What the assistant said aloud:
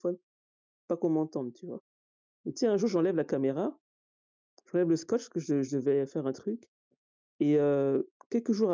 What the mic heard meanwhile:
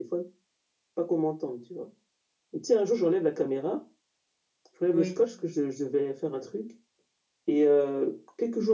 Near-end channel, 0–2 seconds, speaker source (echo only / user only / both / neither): echo only